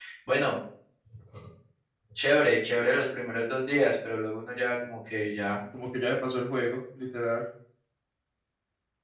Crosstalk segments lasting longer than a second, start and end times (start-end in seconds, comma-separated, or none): none